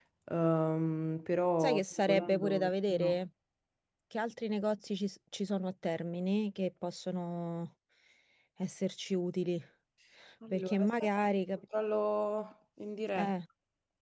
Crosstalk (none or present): present